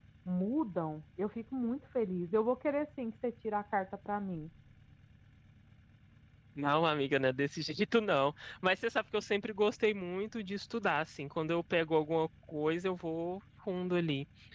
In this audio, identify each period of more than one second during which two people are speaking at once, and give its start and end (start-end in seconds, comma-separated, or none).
none